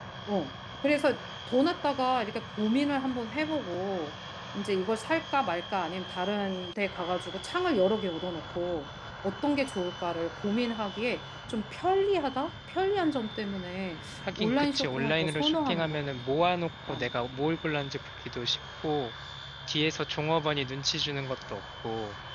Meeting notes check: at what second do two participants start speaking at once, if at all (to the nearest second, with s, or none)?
14 s